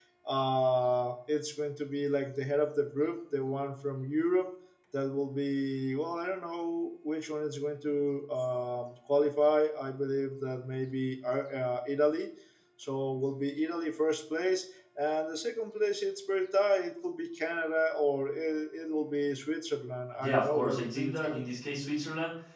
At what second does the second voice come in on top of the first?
20.2 s

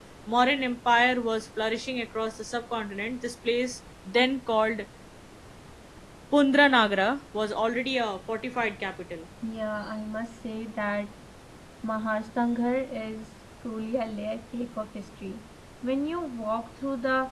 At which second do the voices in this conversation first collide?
none

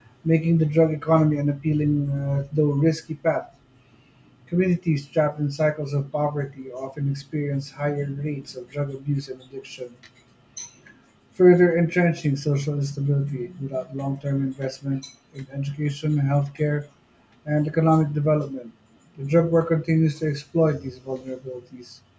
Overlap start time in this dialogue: none

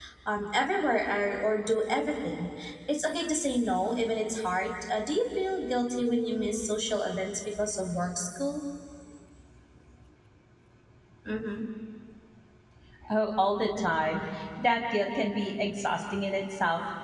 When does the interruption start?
none

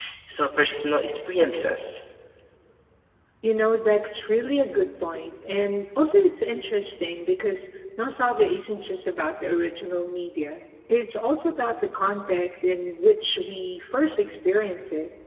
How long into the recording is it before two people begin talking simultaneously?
none

